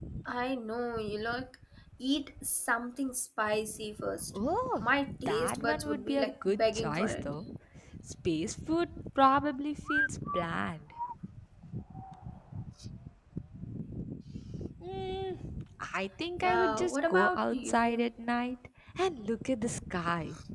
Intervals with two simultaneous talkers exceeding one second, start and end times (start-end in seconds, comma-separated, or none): 5.3-7.2, 16.4-18.0